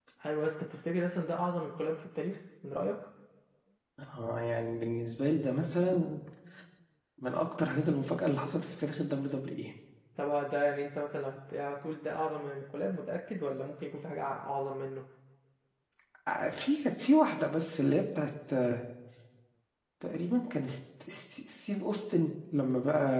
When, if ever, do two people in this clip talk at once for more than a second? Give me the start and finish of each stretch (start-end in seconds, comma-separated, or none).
none